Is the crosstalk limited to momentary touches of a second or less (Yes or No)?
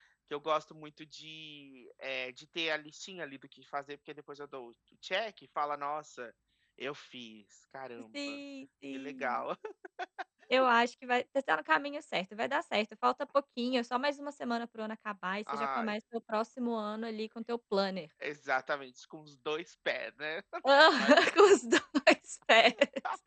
Yes